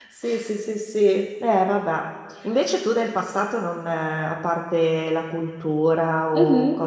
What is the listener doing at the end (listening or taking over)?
listening